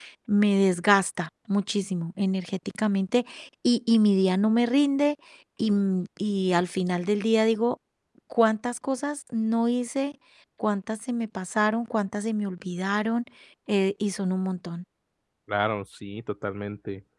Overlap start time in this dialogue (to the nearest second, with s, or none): none